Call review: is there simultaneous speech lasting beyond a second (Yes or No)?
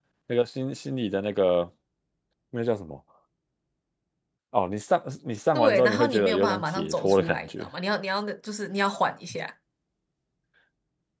Yes